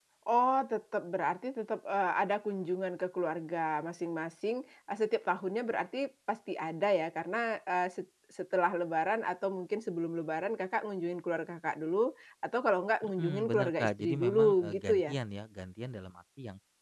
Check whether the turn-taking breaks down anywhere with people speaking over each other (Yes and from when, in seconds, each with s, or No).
Yes, from 13.0 s